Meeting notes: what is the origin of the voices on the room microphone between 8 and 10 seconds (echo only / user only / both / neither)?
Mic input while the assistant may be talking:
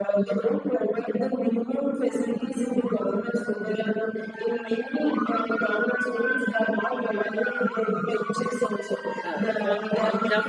both